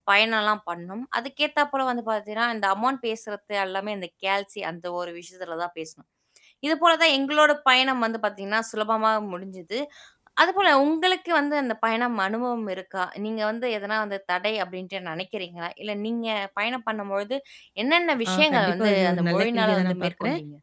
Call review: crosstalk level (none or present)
present